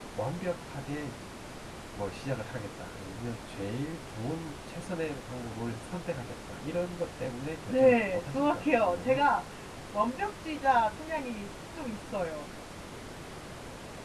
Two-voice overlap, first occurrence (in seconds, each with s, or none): 7.7 s